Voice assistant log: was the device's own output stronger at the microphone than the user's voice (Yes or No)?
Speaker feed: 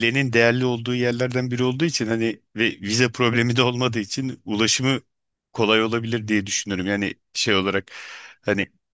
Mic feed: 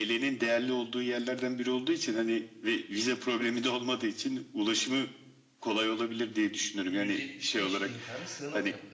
Yes